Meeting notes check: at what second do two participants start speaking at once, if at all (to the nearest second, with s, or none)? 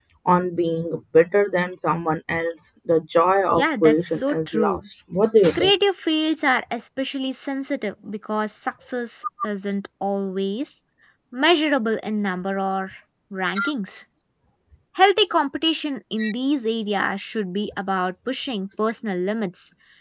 4 s